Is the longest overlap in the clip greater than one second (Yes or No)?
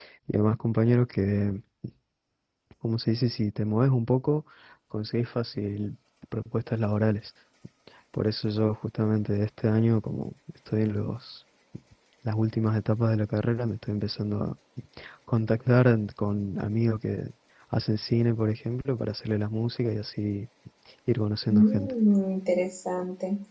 No